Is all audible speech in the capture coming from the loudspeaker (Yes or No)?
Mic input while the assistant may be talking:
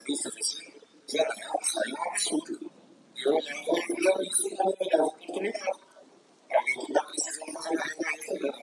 Yes